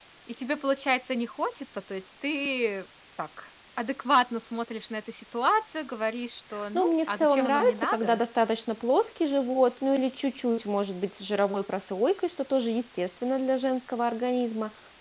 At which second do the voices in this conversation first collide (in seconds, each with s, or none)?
6.8 s